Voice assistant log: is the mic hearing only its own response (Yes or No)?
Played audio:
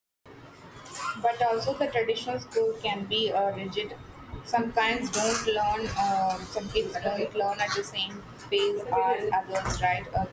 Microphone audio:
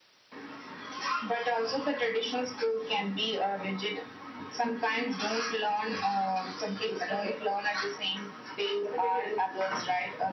Yes